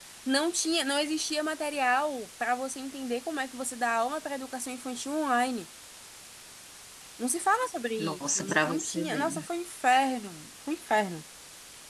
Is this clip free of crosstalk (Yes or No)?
No